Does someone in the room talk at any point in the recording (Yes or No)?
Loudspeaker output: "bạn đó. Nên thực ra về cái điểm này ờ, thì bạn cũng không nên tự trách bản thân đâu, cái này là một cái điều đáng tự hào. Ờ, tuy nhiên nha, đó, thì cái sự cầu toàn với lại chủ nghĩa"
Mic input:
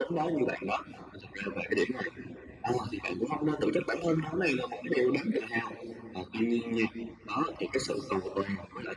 No